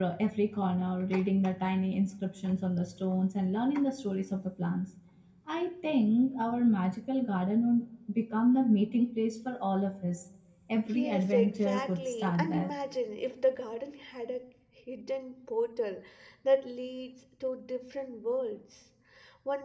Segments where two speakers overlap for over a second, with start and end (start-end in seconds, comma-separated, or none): 10.9-12.7